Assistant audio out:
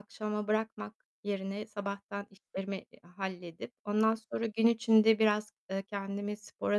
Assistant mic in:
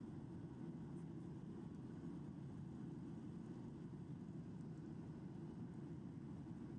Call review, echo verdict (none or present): none